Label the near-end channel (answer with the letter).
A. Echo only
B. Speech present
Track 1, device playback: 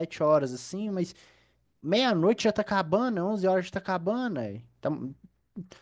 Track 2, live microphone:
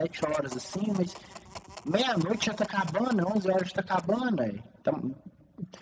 A